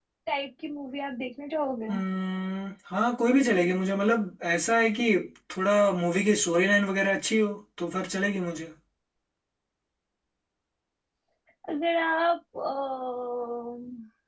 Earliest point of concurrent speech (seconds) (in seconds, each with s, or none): none